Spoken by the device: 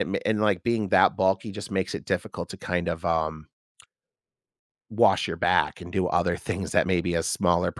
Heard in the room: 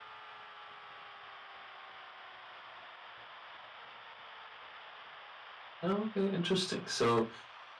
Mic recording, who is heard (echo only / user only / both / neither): user only